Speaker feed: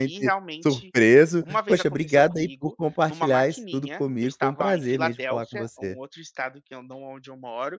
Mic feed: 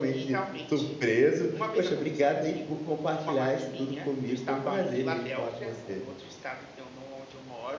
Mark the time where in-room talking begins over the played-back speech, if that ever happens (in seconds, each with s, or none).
none